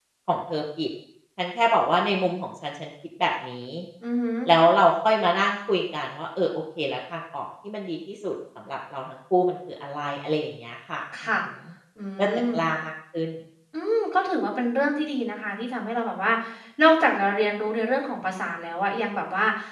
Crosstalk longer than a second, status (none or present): none